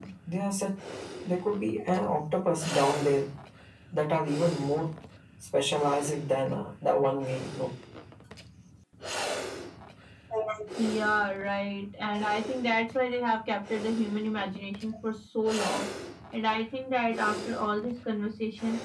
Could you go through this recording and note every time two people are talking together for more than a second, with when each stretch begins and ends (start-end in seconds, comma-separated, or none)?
none